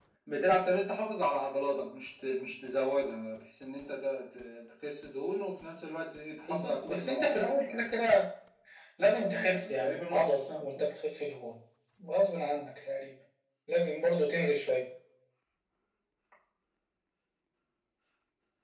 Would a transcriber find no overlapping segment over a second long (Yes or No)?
No